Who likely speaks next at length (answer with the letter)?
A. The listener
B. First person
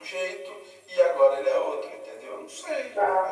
A